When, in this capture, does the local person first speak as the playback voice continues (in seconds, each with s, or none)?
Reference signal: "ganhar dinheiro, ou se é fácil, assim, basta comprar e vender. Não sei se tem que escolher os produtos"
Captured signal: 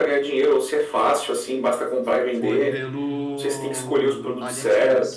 2.3 s